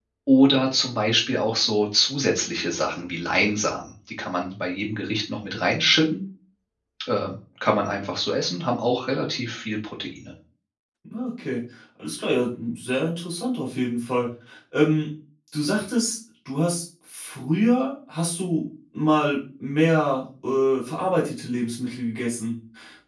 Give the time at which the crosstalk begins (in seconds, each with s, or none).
none